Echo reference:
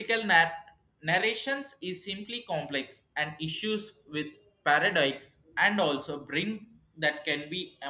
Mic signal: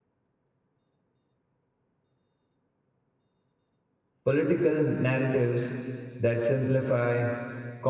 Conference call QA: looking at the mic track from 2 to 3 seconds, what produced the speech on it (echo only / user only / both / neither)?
neither